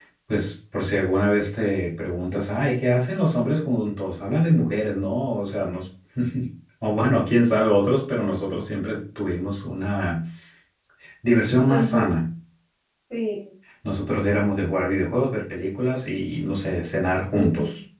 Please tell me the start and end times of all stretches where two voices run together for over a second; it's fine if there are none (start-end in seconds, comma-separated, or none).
none